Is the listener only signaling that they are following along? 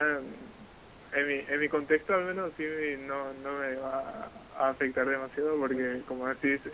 Yes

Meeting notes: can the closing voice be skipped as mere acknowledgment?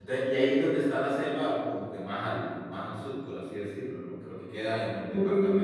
Yes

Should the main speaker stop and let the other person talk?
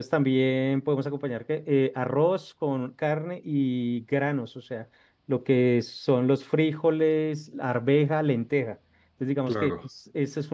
No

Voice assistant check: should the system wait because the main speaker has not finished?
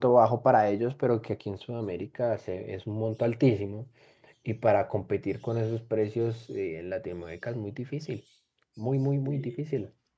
No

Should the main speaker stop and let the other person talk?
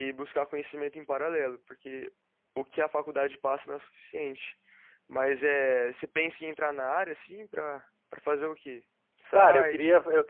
Yes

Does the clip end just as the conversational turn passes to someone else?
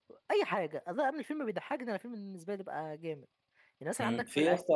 Yes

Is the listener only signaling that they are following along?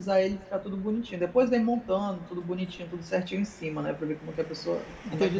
No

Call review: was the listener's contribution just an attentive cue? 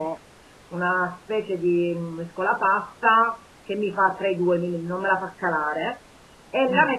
Yes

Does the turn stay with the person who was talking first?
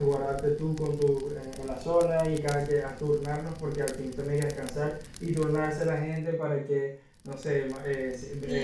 No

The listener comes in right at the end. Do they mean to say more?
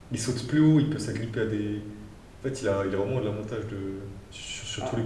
No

